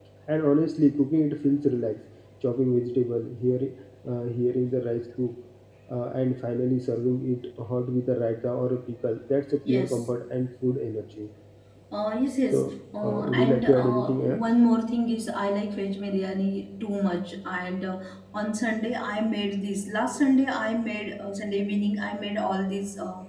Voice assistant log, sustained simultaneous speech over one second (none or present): present